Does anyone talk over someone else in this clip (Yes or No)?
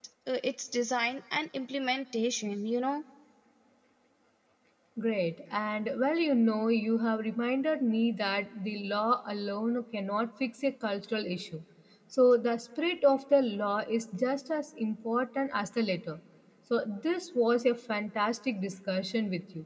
No